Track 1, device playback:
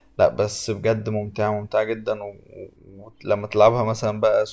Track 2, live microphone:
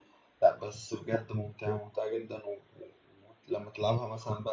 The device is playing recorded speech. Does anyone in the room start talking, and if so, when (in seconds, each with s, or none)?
none